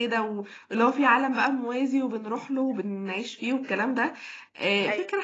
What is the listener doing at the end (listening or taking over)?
listening